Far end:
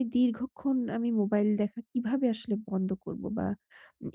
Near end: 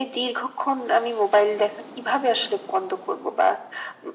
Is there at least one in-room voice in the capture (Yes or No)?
No